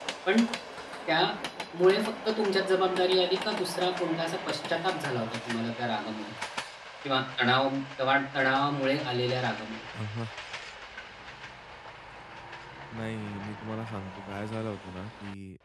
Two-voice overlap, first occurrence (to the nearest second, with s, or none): none